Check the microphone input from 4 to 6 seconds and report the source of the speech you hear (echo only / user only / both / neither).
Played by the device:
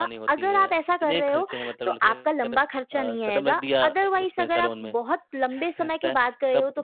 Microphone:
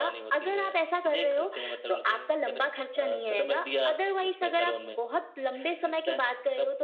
echo only